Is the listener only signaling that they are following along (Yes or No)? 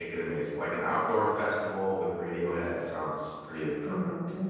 No